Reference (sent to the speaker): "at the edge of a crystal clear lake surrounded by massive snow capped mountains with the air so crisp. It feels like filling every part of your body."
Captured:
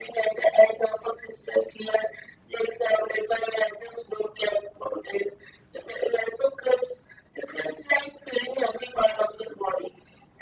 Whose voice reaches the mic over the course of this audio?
echo only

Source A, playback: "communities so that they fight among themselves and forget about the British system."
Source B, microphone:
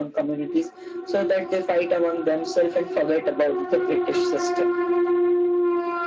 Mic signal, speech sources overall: echo only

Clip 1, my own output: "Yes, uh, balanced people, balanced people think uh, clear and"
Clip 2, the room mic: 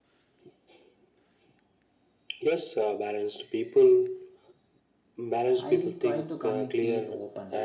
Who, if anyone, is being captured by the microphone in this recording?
both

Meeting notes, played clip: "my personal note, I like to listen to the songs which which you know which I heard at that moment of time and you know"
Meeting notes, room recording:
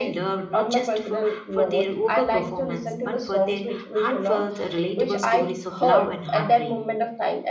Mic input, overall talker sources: both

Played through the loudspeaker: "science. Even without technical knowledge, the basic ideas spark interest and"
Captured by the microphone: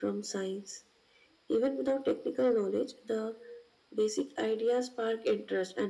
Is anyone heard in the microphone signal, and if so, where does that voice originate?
echo only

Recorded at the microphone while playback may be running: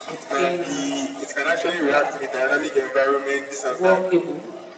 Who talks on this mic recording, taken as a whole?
both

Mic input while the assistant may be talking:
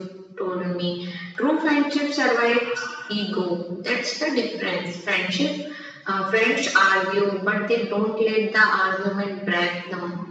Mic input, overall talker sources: echo only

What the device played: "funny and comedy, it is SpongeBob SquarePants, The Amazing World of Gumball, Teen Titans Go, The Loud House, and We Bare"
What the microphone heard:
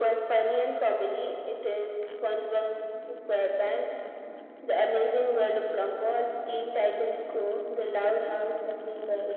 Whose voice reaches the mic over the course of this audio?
echo only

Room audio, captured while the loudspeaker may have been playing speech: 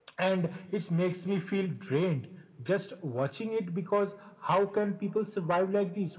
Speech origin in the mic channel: echo only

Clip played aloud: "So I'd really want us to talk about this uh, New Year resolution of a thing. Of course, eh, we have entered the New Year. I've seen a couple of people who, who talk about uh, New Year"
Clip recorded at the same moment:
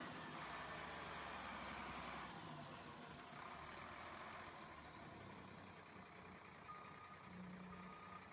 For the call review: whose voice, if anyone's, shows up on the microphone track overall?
neither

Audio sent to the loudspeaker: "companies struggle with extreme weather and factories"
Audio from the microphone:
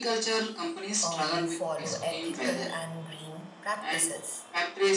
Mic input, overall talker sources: both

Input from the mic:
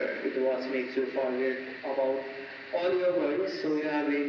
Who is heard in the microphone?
echo only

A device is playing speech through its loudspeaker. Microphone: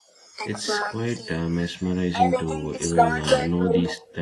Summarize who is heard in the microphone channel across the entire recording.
both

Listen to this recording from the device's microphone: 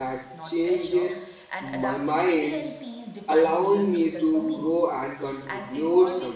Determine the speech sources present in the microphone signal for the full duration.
both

